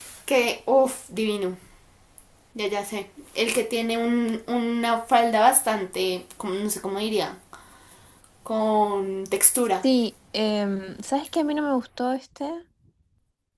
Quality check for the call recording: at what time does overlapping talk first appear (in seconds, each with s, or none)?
none